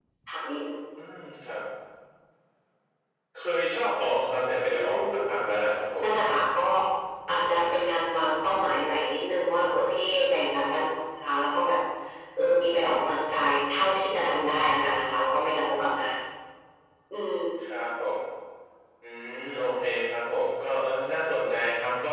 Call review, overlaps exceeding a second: none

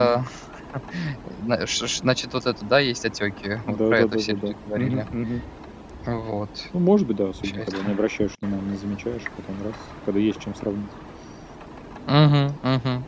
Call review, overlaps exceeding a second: present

